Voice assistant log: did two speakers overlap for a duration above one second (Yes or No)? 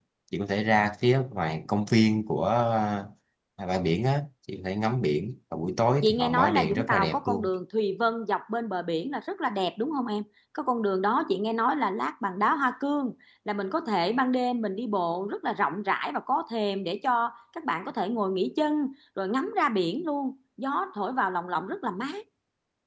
Yes